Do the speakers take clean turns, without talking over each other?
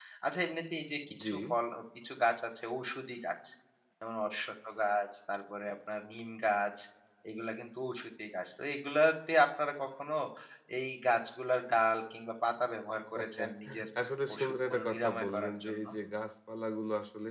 No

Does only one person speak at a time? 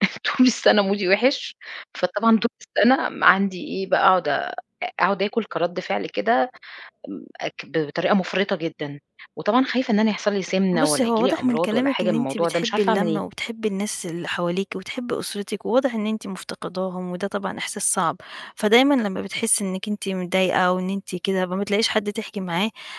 No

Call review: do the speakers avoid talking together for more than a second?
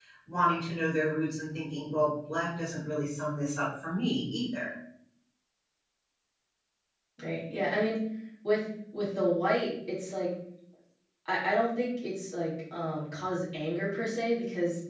Yes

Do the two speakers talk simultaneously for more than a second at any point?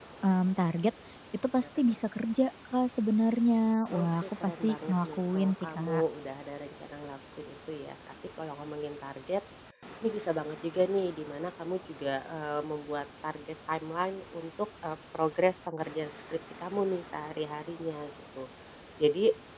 Yes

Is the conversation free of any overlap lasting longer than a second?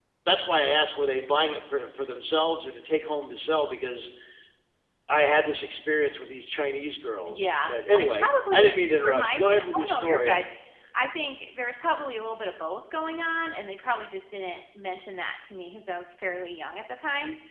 No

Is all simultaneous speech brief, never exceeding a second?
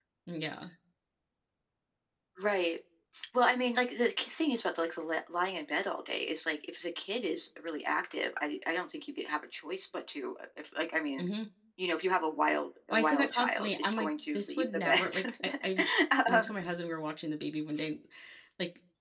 No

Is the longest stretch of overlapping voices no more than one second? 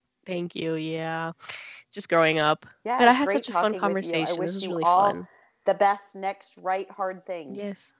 No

